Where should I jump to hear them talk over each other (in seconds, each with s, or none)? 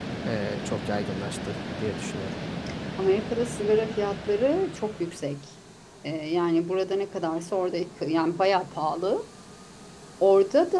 none